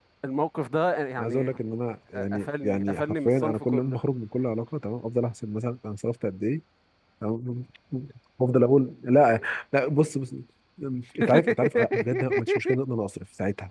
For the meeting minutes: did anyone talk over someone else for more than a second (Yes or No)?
Yes